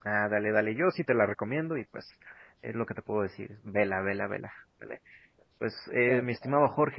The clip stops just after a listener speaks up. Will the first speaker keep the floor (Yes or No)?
Yes